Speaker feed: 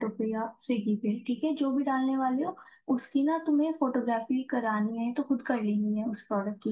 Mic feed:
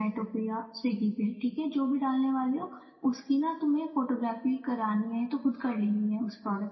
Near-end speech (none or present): none